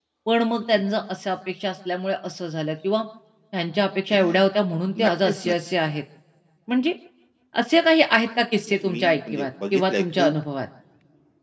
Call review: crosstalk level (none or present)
present